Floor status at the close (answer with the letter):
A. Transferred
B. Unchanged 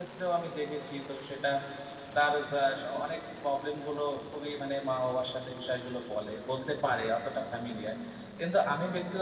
B